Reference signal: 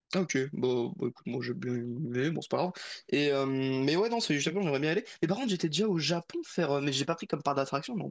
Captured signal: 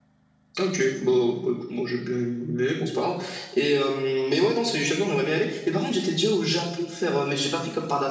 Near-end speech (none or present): none